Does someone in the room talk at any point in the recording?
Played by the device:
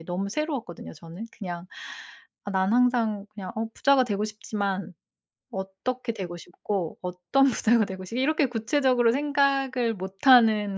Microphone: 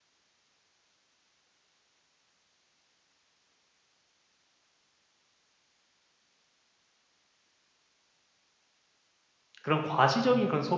Yes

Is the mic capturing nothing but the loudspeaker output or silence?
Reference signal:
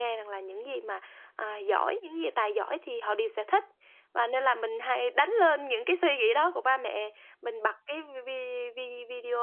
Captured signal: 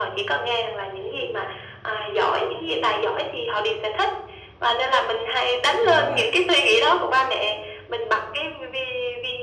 No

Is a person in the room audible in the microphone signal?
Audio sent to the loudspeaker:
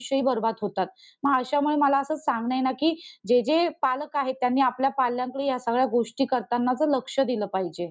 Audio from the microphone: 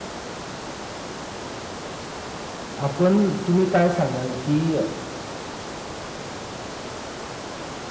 Yes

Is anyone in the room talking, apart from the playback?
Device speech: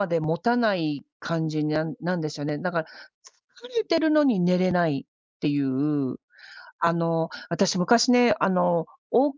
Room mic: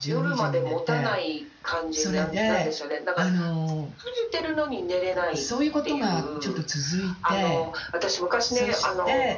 Yes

